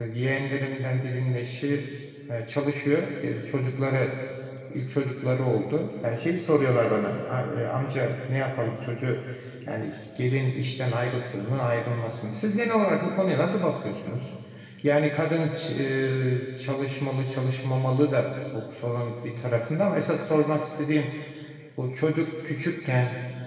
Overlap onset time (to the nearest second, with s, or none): none